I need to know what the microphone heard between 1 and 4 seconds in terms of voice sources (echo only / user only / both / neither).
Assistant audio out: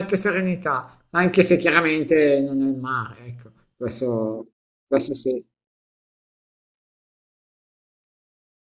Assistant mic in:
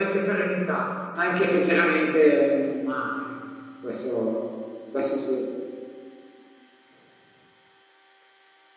echo only